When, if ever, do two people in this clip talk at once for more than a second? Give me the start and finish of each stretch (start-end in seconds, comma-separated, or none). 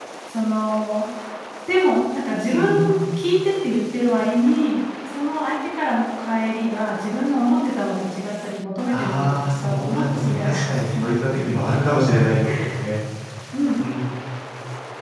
8.9-11.5